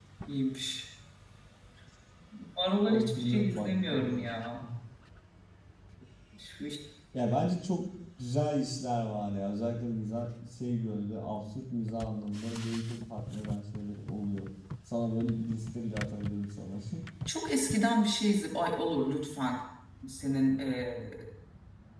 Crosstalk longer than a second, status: present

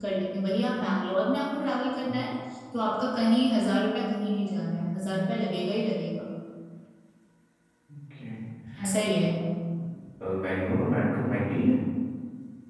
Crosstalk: none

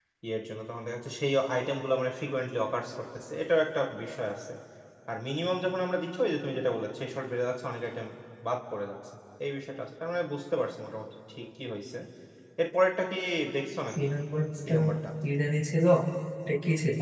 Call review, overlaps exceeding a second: none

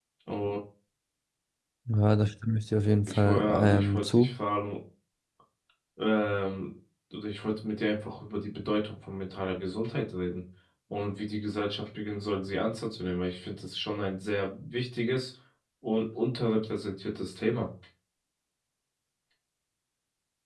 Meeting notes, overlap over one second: present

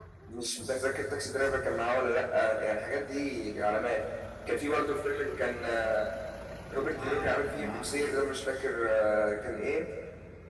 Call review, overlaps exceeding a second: present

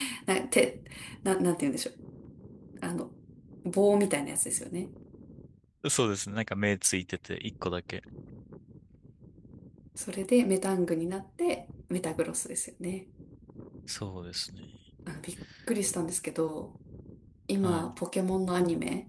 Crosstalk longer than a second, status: none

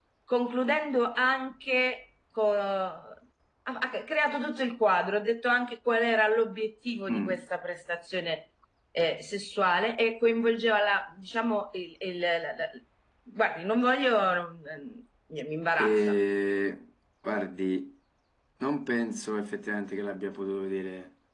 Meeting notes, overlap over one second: none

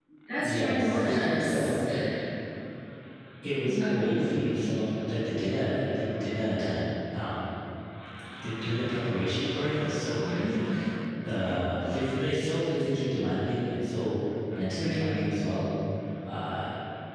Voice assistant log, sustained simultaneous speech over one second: present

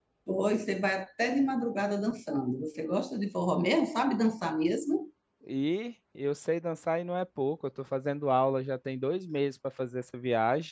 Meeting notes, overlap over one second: none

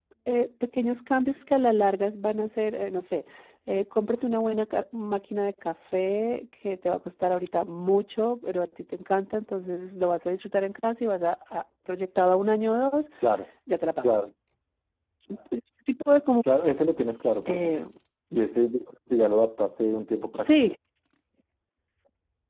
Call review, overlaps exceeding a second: none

